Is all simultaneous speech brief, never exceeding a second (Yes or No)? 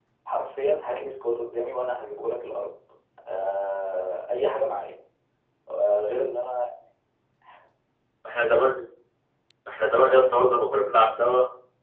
Yes